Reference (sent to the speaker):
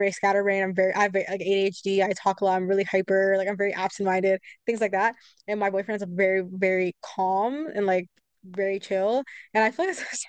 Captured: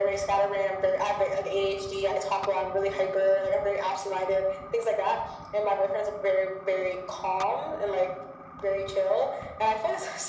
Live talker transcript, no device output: none

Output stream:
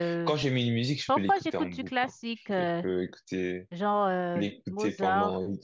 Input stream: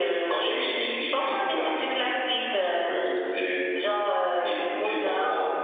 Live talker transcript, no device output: none

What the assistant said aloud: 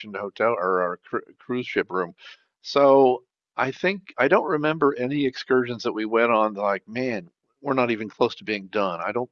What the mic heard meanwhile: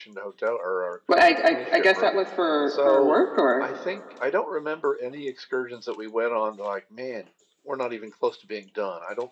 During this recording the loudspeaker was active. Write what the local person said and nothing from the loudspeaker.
Well, I, I I guess that was for for work or

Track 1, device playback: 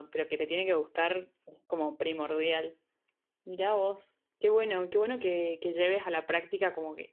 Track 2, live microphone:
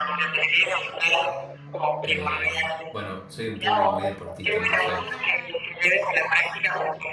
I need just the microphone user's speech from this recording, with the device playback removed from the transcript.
eh, bueno, soy de un pueblo muy deportista, entonces

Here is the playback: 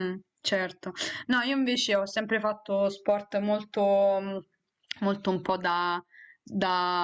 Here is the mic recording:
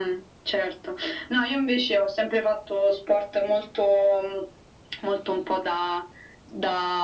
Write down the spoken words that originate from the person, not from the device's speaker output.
none

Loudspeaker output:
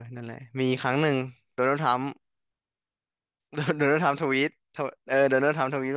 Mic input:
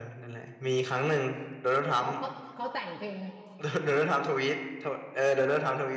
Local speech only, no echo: เขาเขาเขาแต่งเพลง

